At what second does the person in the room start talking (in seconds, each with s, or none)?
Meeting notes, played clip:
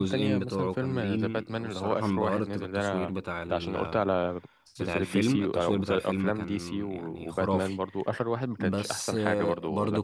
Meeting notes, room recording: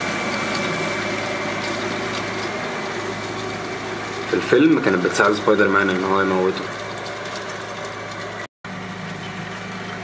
4.2 s